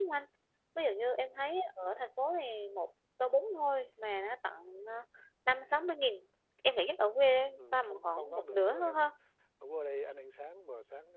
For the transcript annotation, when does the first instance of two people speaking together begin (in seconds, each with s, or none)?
7.6 s